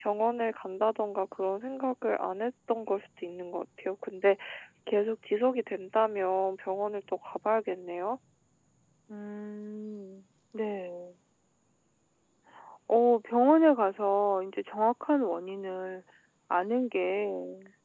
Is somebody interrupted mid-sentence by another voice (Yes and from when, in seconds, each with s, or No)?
No